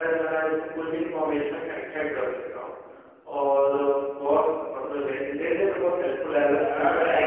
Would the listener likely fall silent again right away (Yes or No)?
No